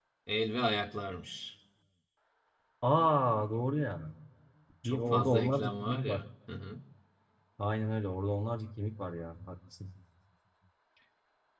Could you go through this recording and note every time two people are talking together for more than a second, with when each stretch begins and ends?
4.8-6.2

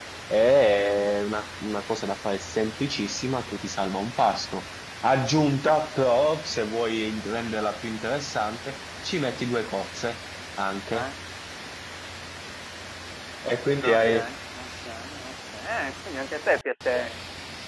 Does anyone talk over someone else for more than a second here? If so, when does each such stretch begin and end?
none

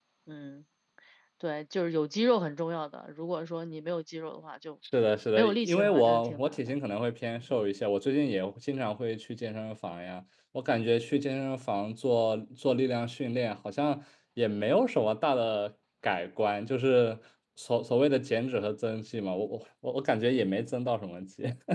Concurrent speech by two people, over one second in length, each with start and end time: 5.4-6.7

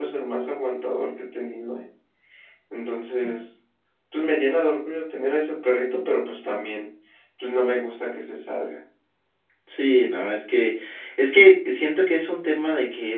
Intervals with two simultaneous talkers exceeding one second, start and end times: none

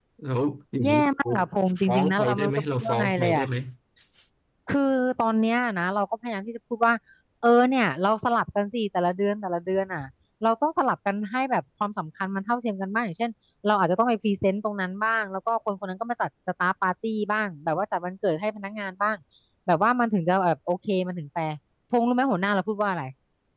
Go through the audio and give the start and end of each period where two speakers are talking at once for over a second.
1.8-3.4

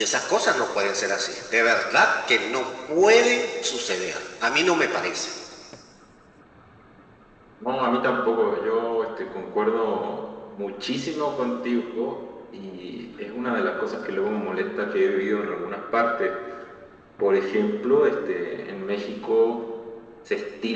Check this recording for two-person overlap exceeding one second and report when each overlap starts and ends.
none

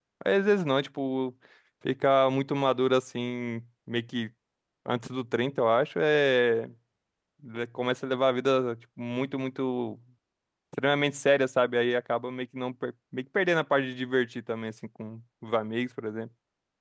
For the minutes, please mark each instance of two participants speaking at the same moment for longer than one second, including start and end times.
none

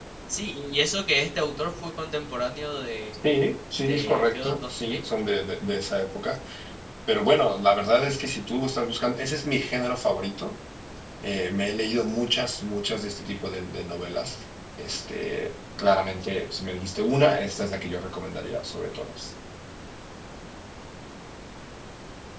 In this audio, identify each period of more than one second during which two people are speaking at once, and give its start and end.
3.8-5.0

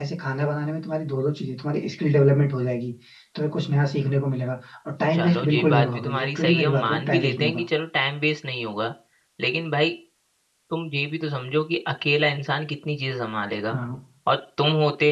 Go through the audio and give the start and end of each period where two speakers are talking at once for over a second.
5.1-7.6

